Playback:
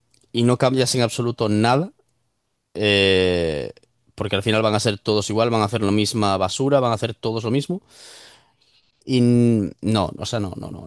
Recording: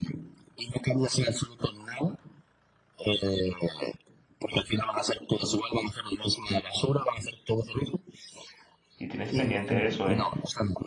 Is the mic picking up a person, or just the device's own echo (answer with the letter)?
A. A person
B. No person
A